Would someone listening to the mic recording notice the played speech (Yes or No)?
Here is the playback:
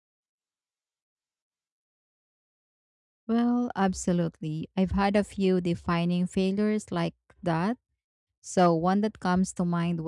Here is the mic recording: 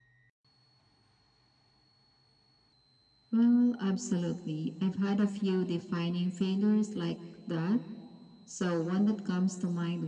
Yes